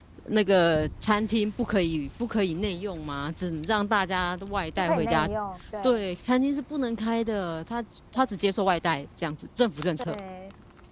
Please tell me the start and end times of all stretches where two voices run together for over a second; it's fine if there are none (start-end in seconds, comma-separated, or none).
none